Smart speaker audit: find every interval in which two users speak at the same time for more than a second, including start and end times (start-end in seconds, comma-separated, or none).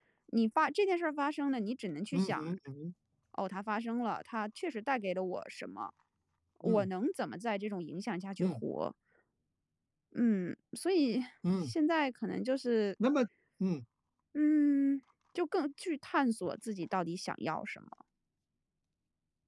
none